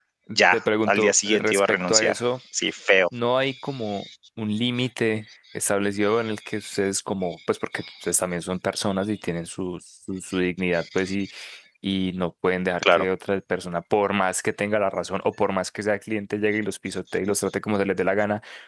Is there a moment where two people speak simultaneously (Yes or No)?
Yes